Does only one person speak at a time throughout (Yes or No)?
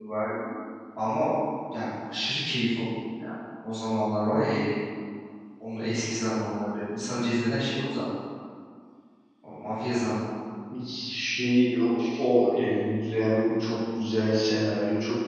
Yes